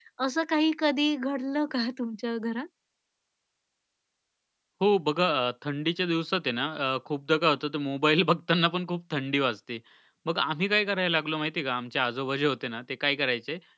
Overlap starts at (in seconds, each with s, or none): none